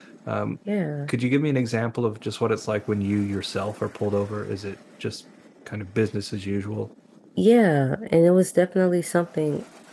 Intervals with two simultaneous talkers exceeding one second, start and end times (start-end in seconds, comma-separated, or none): none